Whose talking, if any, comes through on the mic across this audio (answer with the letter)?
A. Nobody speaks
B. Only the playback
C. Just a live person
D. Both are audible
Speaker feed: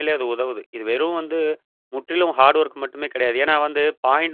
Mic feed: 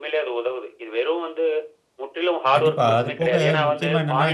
D